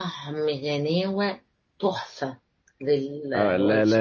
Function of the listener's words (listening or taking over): taking over